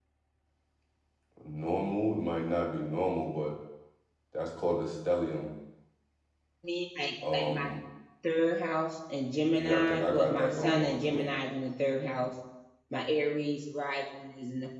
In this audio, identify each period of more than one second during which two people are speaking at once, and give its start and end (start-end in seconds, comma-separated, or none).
9.5-11.2